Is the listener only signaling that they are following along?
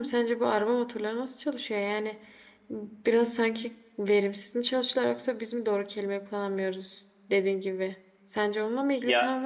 Yes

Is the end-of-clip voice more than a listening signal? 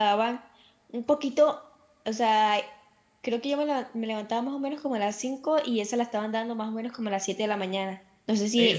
Yes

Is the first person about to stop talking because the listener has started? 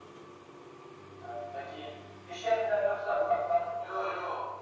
Yes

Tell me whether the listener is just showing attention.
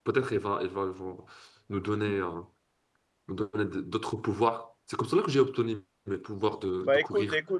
No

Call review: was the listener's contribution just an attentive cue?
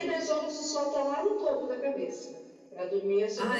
Yes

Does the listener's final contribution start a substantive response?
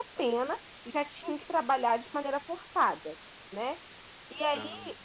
No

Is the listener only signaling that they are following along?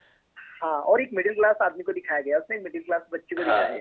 No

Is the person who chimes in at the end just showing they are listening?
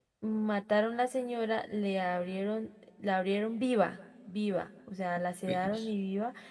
Yes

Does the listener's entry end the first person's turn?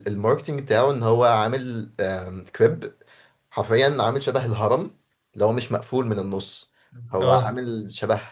No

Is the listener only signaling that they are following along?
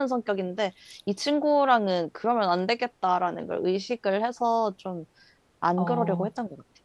No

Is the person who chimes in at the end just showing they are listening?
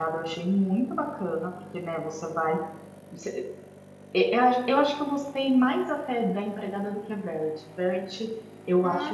Yes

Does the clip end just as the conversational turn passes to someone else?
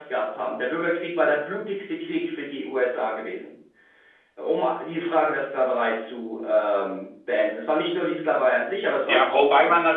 Yes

